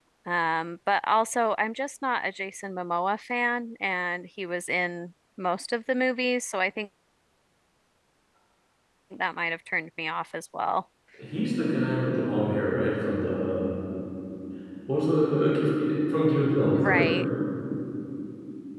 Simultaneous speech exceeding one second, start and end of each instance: none

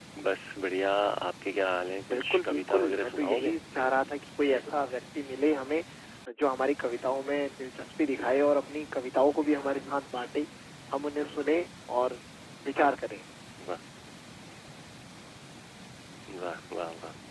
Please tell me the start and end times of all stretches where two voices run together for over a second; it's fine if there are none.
2.1-3.6

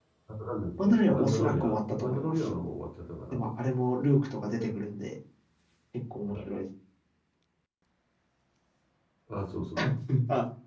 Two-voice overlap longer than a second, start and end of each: 0.8-2.5

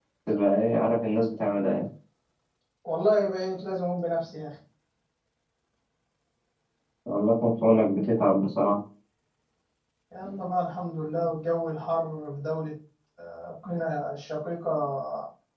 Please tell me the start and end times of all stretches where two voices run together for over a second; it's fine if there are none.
none

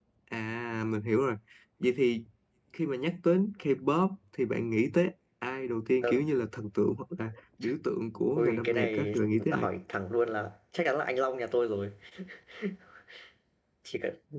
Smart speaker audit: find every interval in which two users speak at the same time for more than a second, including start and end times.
8.4-9.7

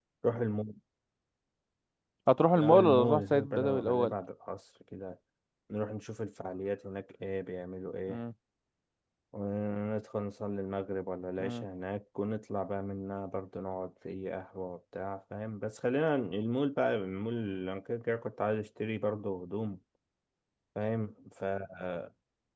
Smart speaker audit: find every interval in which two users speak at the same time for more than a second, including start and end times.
2.5-4.1

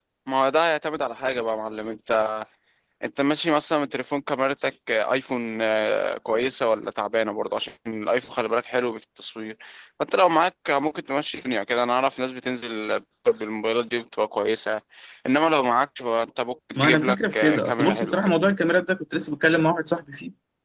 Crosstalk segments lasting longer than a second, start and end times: 16.8-18.4

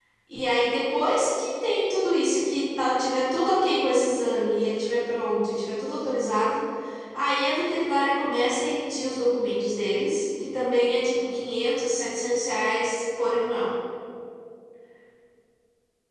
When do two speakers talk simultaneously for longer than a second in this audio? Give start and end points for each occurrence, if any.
none

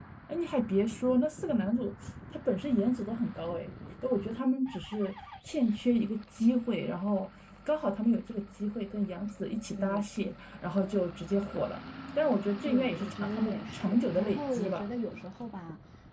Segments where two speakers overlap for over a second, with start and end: 12.6-14.9

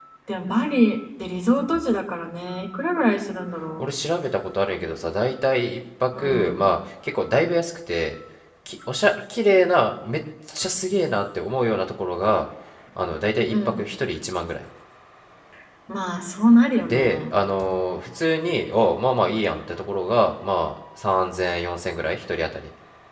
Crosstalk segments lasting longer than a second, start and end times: none

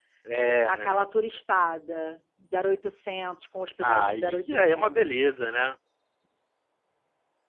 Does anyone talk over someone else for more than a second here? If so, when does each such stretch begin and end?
3.8-5.2

